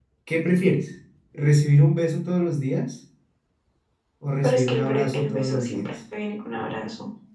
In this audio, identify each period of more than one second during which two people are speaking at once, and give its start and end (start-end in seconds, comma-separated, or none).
4.4-5.9